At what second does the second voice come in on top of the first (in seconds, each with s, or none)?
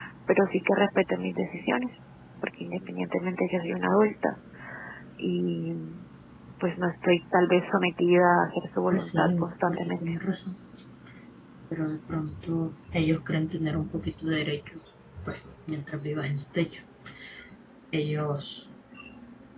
8.9 s